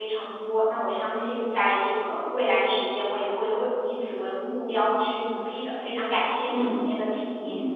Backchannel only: No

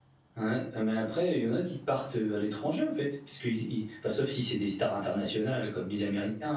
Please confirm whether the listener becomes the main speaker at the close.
No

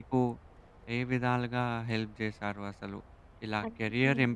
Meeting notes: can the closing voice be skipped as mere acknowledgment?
Yes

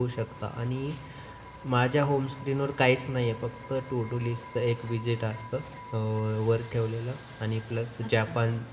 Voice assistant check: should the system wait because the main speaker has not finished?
Yes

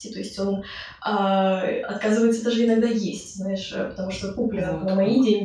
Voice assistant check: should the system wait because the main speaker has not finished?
Yes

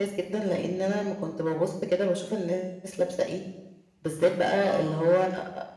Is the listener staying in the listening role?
Yes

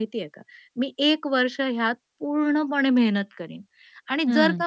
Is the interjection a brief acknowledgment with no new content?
Yes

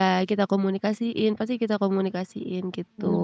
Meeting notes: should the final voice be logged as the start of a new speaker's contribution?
Yes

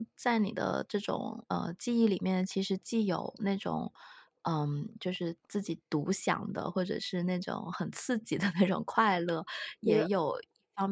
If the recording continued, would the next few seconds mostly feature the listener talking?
No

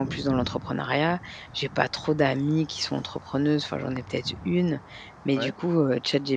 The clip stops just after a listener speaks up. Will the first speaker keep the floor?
Yes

